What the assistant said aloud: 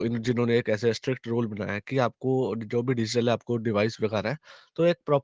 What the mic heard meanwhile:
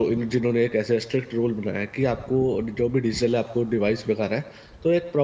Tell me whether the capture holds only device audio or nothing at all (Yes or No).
Yes